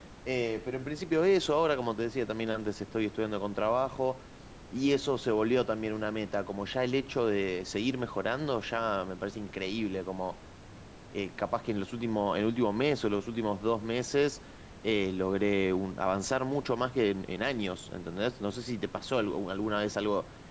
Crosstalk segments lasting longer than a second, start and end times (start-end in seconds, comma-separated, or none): none